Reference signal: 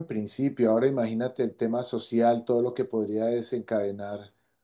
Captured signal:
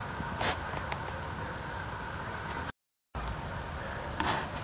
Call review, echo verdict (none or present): none